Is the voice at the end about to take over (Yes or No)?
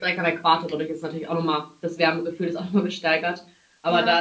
No